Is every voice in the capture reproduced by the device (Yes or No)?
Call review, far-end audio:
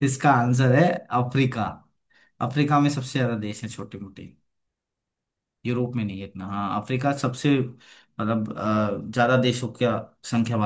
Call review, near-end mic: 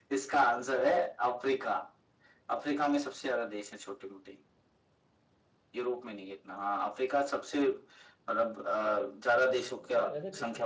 No